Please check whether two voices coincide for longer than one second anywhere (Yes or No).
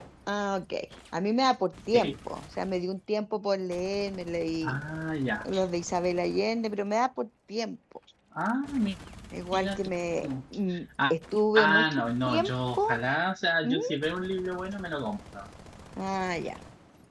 Yes